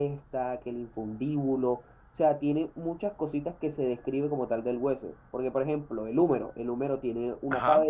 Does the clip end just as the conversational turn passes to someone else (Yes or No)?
No